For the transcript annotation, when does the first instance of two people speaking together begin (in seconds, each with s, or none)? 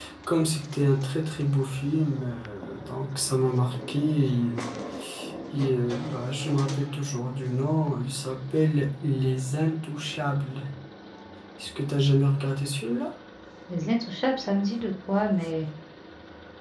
none